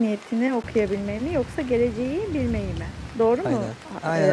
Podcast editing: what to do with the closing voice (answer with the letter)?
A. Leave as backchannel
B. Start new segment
B